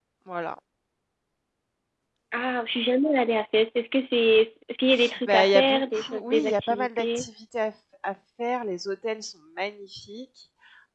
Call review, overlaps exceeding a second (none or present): present